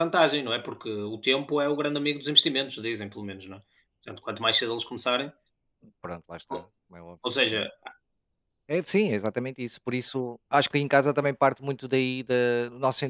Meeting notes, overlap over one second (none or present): none